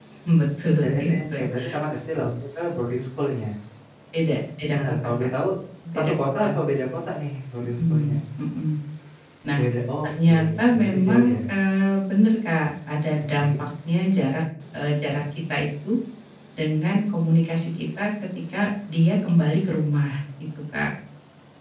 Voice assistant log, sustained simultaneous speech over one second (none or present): present